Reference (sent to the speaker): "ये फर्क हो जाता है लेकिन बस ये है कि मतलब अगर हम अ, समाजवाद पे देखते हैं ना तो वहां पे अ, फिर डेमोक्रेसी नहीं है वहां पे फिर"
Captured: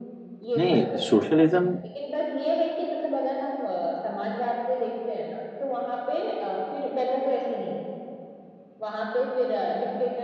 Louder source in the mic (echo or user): user